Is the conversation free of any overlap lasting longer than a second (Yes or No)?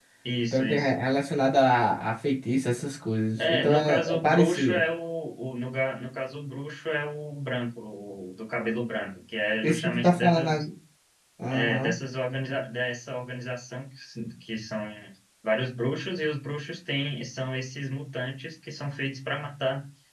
No